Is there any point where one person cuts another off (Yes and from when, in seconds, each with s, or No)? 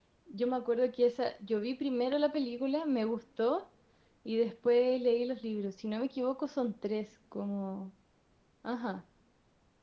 No